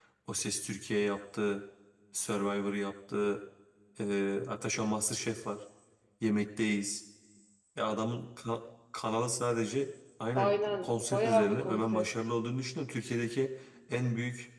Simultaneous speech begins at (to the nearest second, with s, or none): 10 s